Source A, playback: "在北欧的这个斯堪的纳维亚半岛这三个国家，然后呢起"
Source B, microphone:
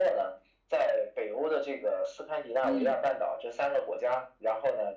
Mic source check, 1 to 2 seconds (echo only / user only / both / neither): echo only